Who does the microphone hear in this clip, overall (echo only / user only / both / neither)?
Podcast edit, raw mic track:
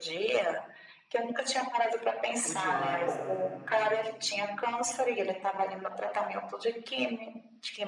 both